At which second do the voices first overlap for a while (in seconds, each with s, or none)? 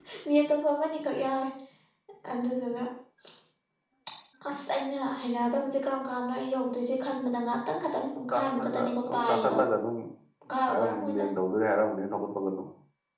8.3 s